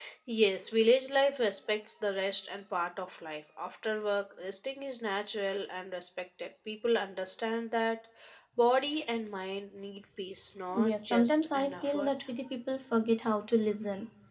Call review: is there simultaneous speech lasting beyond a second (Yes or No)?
Yes